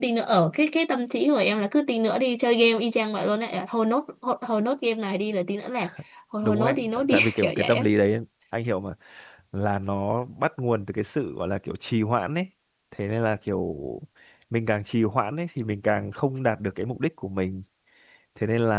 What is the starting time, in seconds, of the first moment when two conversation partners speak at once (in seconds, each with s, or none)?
6.4 s